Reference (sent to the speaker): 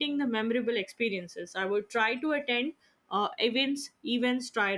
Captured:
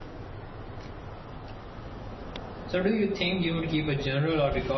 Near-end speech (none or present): present